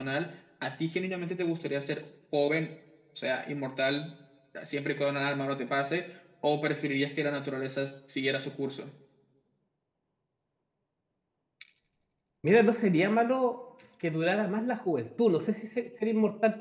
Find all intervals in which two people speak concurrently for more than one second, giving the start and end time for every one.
none

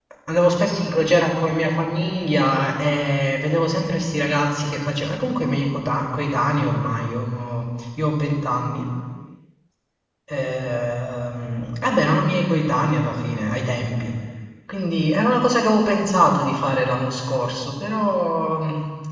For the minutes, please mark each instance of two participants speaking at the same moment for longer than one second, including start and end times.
none

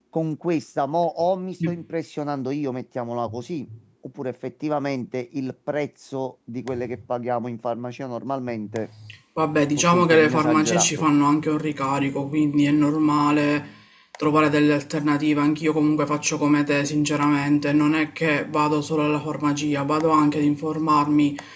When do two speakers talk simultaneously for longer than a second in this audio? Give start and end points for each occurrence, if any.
9.8-11.1

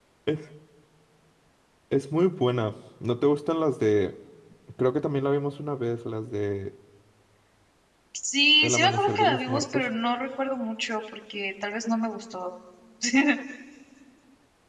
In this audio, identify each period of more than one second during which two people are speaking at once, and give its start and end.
8.6-9.8

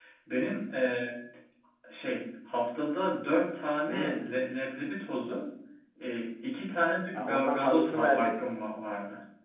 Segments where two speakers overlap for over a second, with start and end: 7.2-8.5

